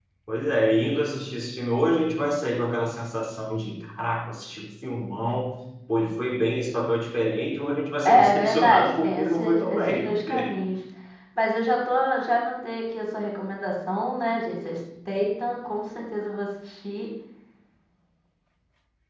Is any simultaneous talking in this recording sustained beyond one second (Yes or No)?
Yes